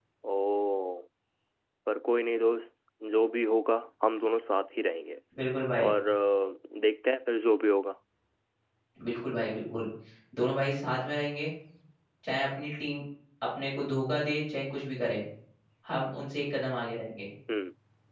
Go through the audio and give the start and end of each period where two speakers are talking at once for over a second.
none

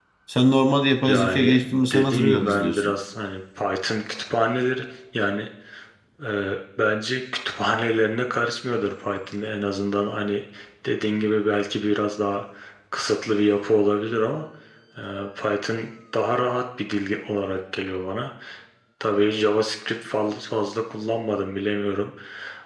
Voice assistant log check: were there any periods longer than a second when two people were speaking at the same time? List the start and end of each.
1.1-2.9

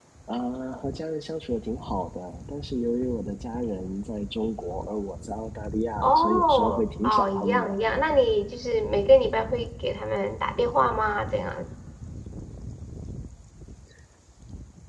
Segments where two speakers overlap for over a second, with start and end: 6.0-7.7

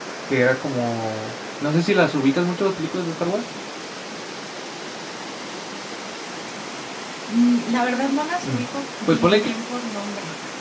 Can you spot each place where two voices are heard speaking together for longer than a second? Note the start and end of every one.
none

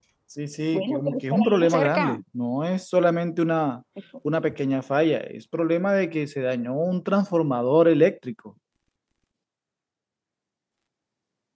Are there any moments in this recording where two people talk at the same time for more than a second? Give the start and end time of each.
0.7-2.2

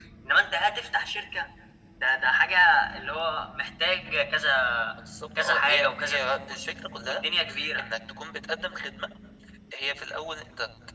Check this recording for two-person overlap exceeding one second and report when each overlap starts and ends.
5.4-7.2

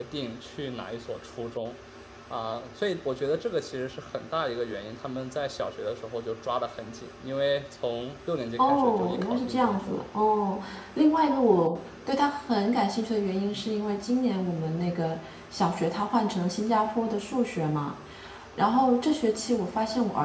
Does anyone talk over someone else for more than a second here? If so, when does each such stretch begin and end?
8.6-10.0

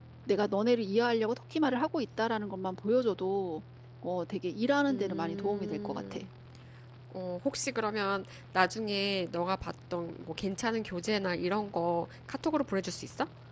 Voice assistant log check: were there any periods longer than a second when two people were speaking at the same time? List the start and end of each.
4.9-6.2

